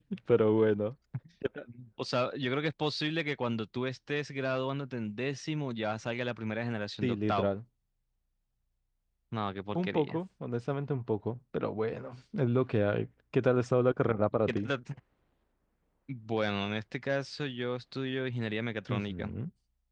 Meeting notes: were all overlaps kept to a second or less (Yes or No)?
Yes